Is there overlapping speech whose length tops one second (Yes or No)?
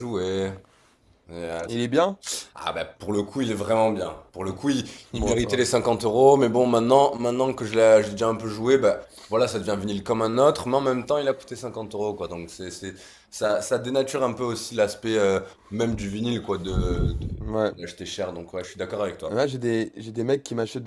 No